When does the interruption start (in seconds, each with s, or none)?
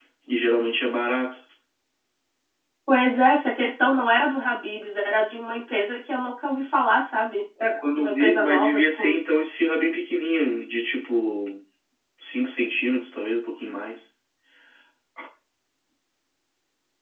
8.0 s